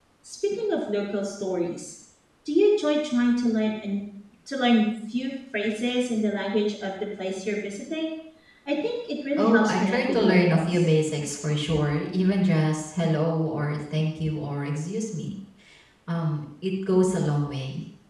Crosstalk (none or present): present